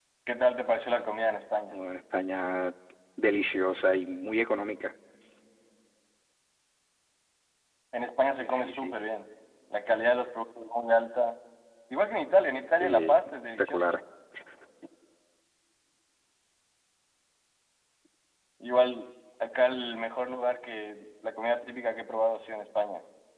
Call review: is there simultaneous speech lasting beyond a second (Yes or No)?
Yes